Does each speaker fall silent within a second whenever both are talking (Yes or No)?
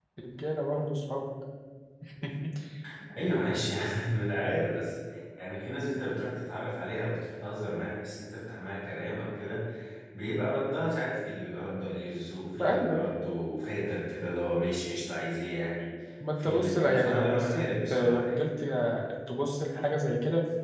No